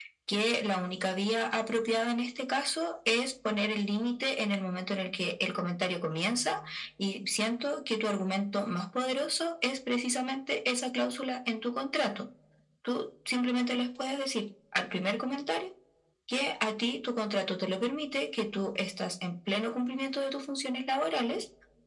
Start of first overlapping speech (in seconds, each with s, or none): none